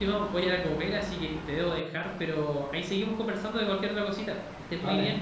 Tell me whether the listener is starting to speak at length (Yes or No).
Yes